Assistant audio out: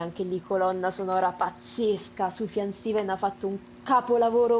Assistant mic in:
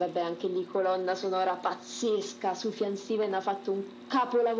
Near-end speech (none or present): none